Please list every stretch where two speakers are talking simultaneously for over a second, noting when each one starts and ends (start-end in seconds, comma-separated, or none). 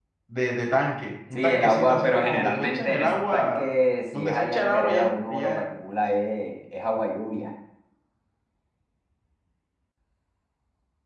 1.3-3.7, 4.1-5.6